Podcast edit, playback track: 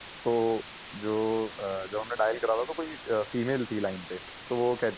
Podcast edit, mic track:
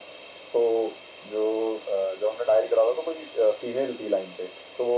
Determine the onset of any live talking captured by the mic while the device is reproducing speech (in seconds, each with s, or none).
none